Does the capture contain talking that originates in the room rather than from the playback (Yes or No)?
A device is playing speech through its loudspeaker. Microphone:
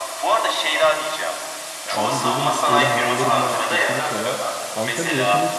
Yes